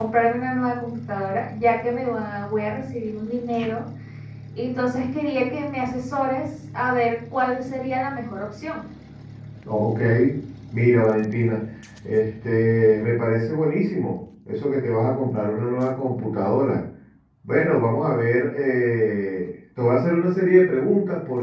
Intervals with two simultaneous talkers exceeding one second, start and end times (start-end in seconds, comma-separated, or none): none